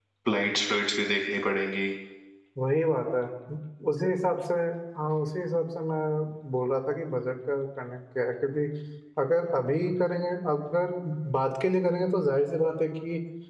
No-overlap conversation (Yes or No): Yes